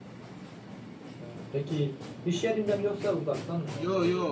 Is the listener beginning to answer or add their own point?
Yes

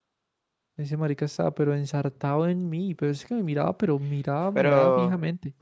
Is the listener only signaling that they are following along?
No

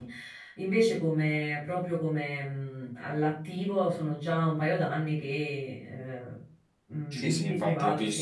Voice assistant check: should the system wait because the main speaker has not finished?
No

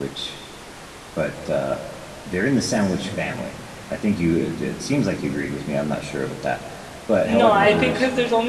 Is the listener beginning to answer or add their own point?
Yes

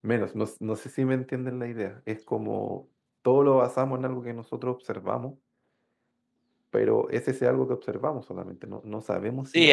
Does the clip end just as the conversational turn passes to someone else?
Yes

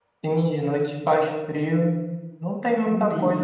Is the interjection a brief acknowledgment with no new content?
Yes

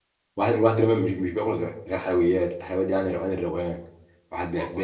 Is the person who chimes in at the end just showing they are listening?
Yes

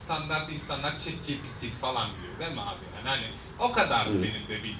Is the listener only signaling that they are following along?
Yes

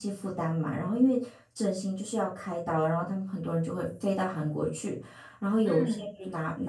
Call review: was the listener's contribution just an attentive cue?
Yes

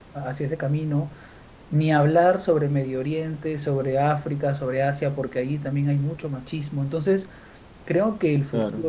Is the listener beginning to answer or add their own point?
No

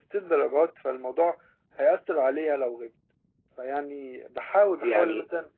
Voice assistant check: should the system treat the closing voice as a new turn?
No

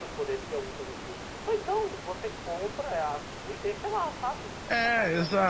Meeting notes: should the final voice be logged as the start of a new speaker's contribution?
Yes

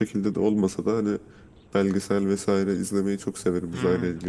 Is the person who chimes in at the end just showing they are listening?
No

